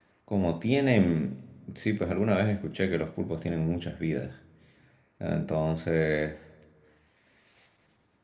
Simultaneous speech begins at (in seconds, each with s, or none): none